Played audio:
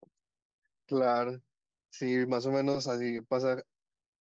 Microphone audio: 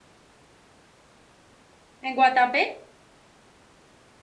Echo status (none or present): none